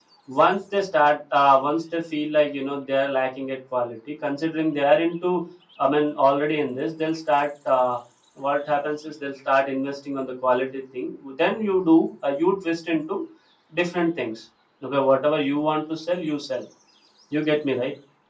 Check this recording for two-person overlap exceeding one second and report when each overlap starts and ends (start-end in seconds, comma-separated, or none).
none